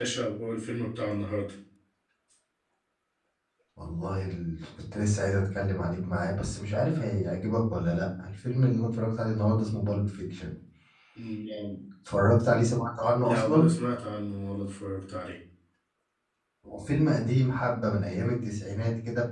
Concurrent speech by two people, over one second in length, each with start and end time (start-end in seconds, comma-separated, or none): none